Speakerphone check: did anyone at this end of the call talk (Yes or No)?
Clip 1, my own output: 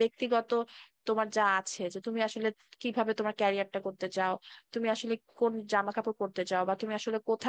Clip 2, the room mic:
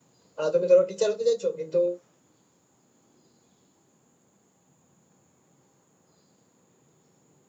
Yes